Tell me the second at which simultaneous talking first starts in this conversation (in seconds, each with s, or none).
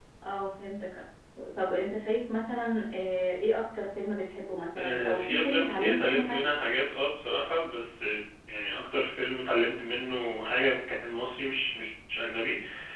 4.8 s